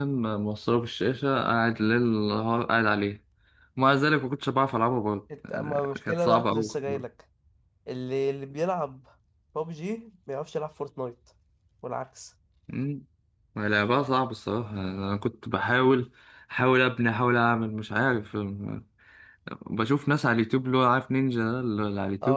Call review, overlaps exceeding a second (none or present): present